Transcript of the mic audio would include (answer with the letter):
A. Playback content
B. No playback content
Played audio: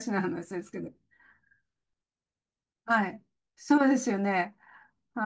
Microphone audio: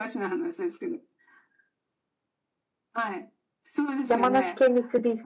A